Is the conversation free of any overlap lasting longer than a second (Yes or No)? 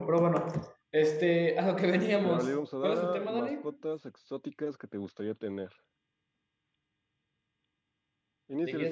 No